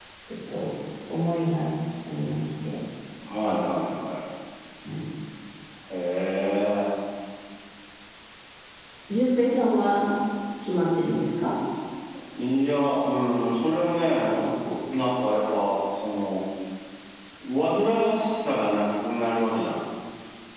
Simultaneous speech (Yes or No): No